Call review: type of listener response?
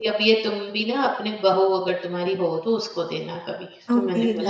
taking over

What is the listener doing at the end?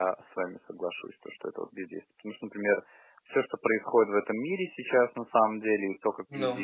listening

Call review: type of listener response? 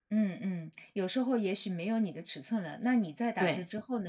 listening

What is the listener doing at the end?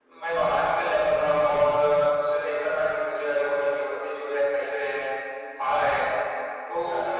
listening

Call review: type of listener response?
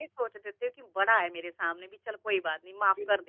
taking over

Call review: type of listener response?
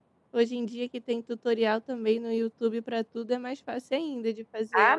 taking over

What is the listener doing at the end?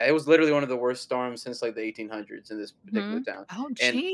taking over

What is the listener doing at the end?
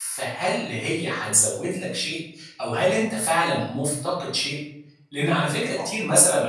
listening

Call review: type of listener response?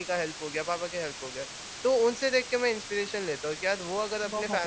listening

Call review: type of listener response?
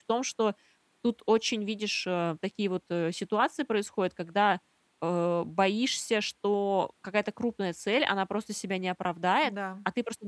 listening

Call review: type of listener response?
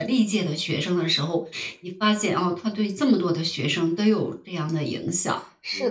taking over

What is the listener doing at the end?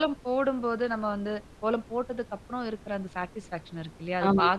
listening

